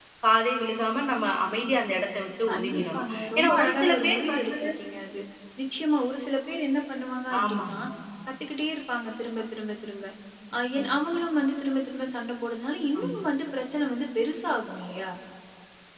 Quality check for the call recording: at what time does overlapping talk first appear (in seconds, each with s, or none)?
2.5 s